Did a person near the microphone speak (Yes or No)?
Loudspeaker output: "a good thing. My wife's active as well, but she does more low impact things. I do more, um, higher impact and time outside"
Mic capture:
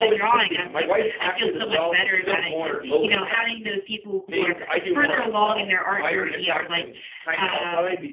Yes